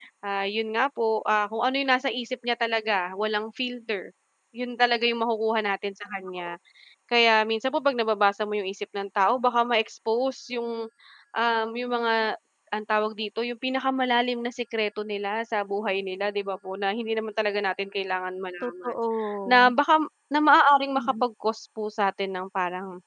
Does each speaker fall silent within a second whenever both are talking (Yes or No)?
Yes